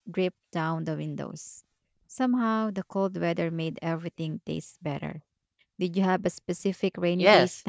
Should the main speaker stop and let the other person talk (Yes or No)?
Yes